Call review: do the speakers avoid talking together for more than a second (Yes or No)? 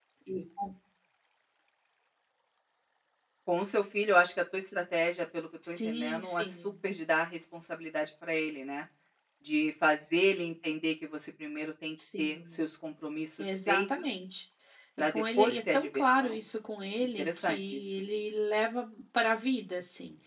No